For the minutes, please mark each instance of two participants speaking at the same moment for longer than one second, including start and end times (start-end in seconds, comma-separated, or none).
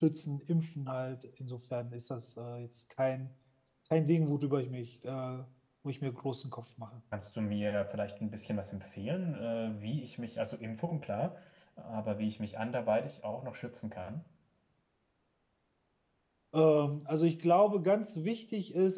none